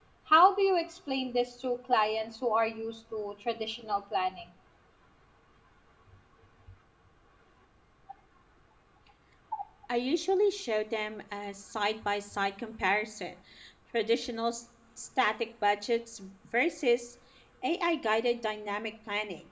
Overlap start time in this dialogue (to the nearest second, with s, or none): none